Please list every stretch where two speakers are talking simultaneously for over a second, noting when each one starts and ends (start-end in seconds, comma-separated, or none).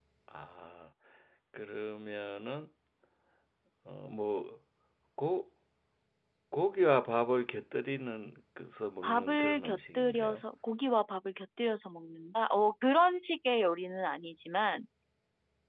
9.0-10.4